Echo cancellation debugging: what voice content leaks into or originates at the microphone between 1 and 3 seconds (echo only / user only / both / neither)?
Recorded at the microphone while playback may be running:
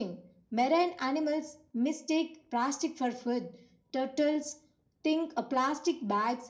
echo only